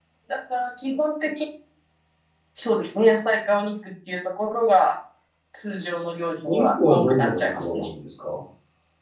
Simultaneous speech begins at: 6 s

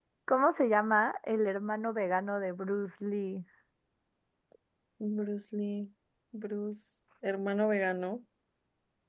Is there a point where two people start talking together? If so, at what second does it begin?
none

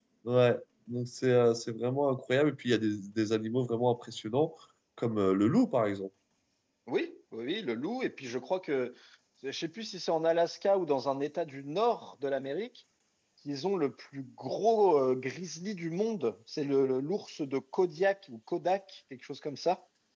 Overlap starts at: none

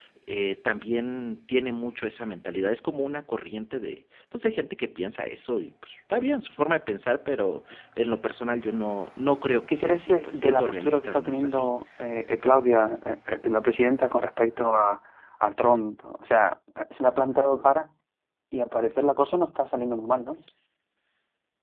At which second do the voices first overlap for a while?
10 s

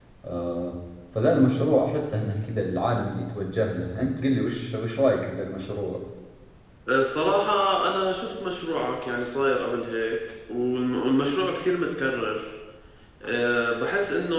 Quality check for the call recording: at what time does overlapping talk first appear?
none

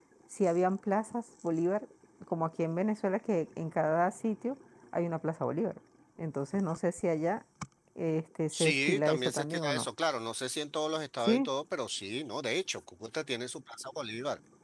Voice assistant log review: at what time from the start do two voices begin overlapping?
9 s

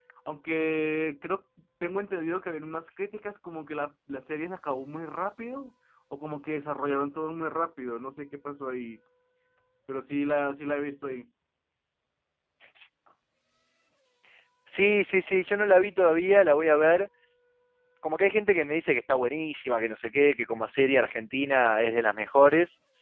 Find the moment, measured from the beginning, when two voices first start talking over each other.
none

